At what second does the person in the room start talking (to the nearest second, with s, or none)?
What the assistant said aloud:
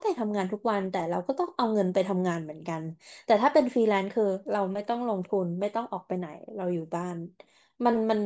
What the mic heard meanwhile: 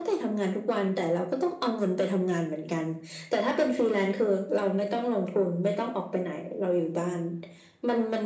none